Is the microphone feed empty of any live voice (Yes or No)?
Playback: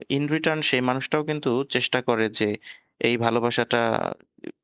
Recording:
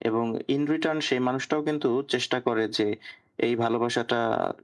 Yes